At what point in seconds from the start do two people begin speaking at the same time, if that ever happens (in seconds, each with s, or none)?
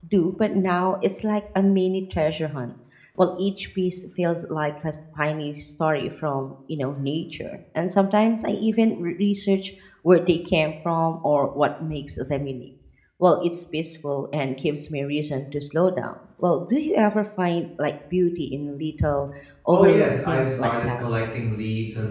19.7 s